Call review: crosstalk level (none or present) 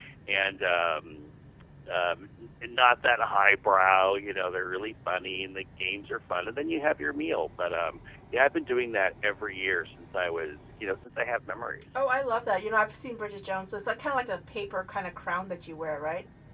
none